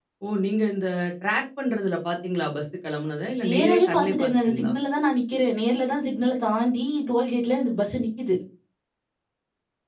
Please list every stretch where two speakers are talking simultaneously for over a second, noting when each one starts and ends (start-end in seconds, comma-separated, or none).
3.4-4.7